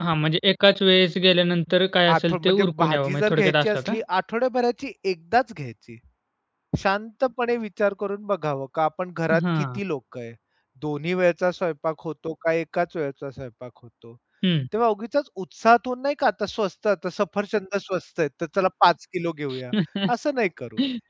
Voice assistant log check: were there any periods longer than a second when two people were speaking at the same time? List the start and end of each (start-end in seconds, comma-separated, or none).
2.1-3.9